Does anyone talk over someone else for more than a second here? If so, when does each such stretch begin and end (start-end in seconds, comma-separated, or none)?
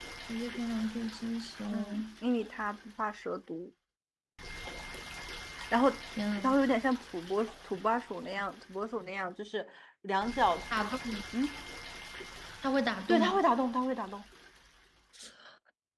none